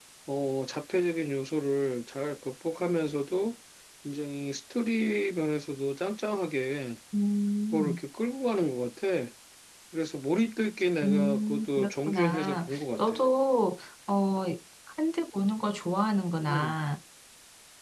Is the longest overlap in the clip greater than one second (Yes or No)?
Yes